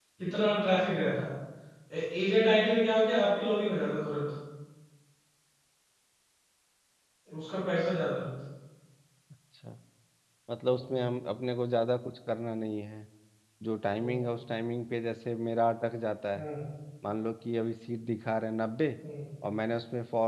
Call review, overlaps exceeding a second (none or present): none